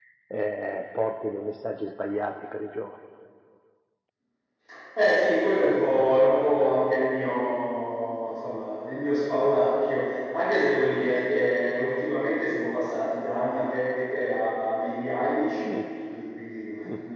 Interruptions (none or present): none